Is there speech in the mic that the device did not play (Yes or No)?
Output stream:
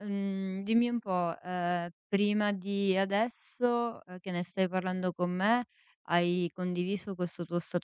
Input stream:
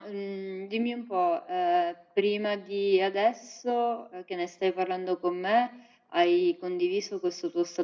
No